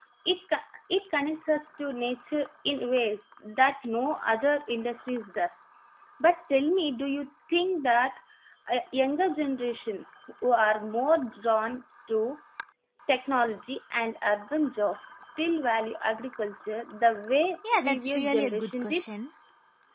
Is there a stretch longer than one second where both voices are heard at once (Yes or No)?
Yes